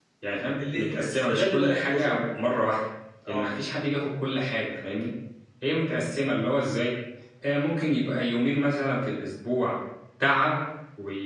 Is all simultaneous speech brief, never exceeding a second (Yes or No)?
No